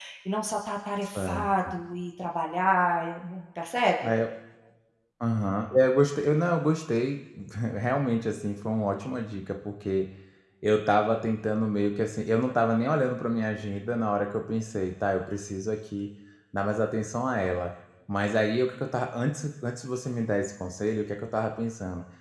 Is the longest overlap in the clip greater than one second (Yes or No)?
No